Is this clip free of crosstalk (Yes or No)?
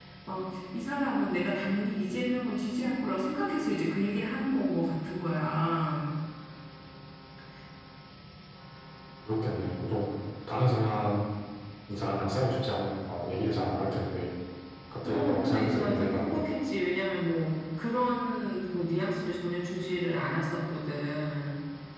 No